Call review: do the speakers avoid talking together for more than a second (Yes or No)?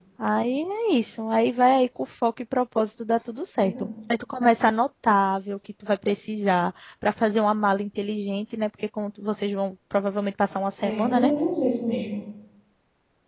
Yes